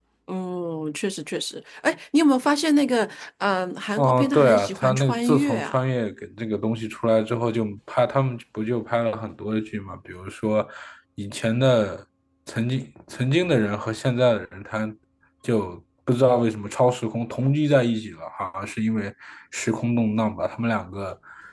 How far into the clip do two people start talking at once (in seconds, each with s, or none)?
4.0 s